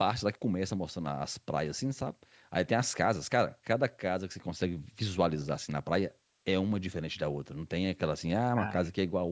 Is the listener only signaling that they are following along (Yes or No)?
Yes